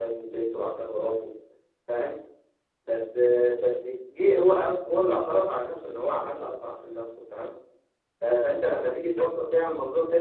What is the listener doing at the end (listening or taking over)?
listening